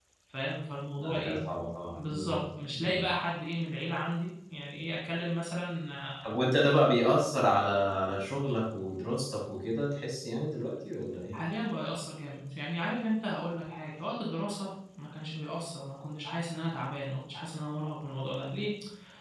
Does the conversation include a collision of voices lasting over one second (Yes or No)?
No